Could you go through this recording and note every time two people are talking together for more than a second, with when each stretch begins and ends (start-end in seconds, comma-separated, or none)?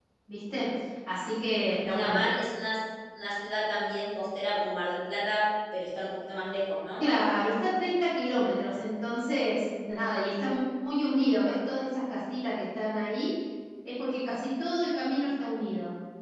none